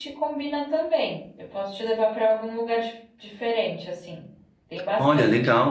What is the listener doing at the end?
taking over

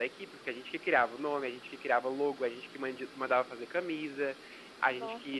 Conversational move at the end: listening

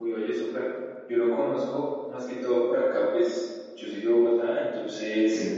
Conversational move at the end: listening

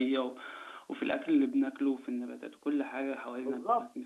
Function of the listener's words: taking over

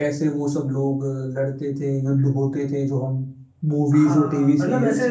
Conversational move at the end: taking over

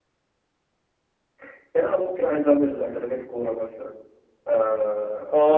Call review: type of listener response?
taking over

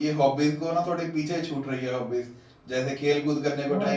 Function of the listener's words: listening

